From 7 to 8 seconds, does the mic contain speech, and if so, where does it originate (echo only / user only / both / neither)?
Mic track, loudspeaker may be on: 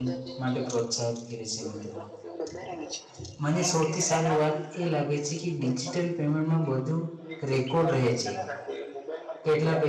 both